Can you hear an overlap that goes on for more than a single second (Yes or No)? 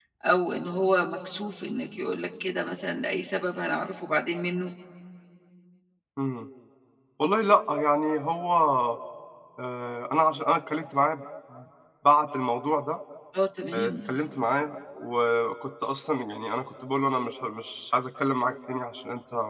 No